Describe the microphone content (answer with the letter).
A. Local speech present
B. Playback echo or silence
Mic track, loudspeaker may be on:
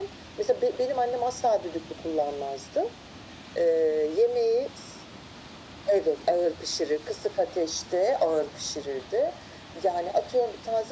B